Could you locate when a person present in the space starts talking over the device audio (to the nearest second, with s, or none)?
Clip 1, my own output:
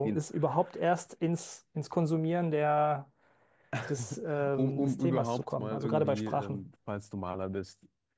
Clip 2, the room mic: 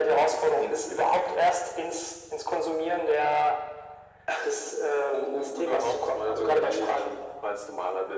none